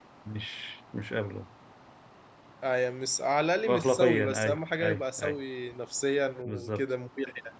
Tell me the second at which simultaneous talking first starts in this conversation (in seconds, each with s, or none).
3.6 s